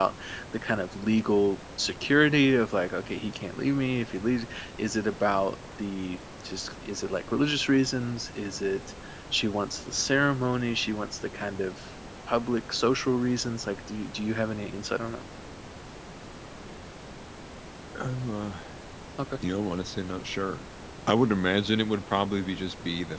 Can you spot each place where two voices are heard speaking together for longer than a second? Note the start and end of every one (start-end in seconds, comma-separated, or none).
none